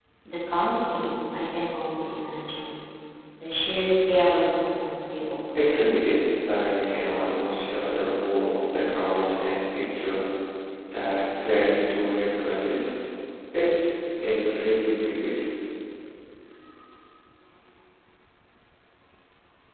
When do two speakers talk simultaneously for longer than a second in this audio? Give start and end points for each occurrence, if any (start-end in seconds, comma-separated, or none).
none